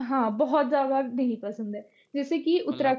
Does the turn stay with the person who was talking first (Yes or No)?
Yes